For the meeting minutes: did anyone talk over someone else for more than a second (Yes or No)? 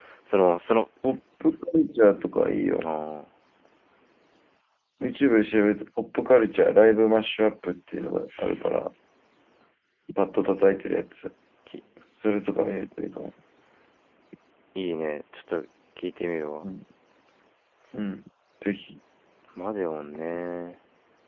No